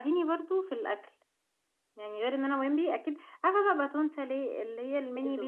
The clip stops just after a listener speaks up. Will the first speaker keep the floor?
Yes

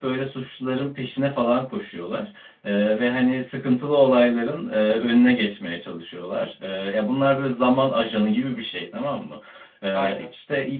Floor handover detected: No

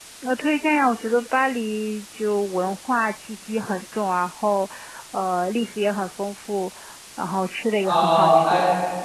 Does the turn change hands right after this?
Yes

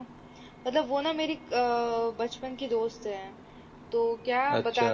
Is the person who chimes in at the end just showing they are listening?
Yes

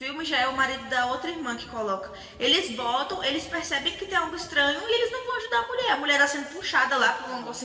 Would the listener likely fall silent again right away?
Yes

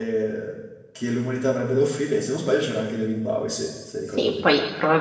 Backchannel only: No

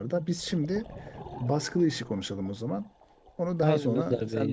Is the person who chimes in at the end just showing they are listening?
No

